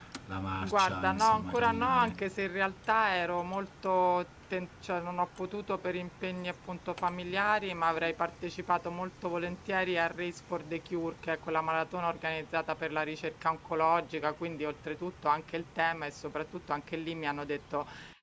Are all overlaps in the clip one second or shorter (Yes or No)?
No